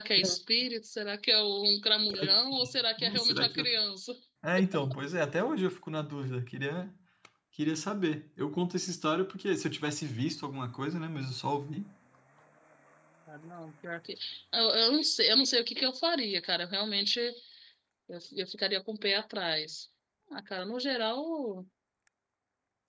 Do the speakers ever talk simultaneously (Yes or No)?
Yes